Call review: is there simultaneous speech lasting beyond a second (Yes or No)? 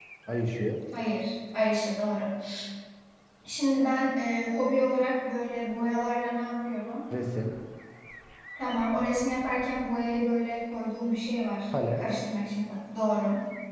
No